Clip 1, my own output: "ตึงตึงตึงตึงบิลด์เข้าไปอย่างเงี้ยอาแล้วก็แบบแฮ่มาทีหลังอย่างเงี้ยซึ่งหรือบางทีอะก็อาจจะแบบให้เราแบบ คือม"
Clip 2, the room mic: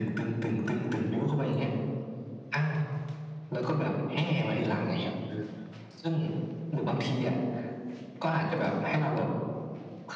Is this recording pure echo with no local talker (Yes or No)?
No